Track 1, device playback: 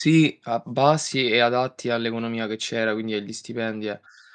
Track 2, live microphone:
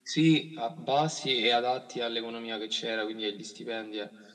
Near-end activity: none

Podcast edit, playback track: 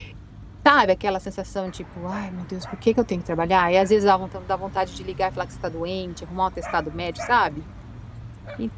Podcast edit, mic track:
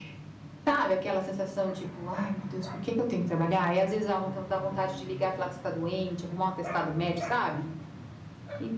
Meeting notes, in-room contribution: none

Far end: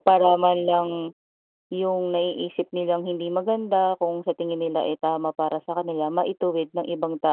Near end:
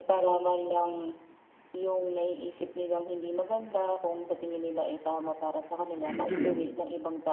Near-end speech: present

